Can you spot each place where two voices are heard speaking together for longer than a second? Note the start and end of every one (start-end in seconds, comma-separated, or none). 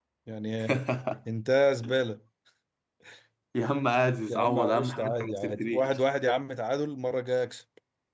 4.3-5.9